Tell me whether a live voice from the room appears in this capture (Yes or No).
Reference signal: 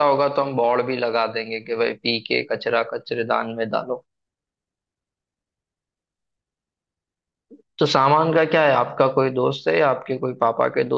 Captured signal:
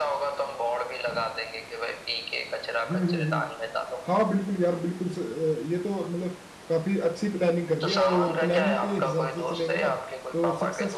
Yes